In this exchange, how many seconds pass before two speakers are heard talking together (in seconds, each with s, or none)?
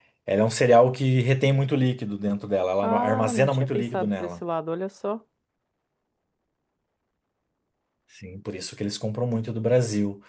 2.8 s